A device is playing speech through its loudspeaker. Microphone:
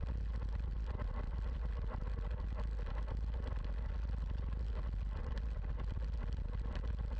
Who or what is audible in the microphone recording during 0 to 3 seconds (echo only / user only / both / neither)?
neither